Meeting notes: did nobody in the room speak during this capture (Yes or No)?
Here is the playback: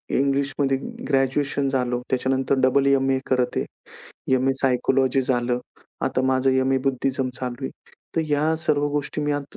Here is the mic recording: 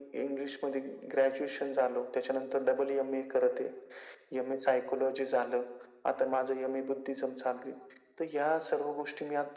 Yes